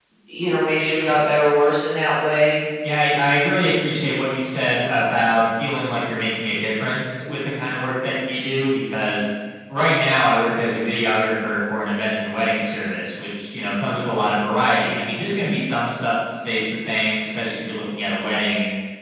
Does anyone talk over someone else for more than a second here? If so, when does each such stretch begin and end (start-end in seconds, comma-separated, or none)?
none